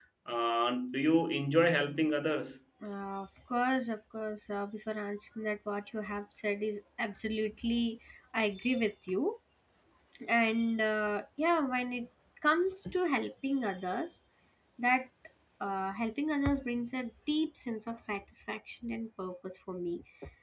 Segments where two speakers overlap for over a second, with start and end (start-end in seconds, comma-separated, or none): none